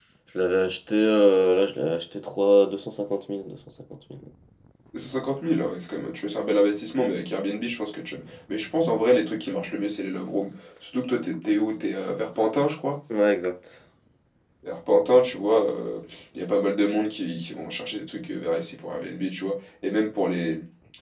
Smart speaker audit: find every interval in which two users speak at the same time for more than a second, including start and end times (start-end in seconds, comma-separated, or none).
none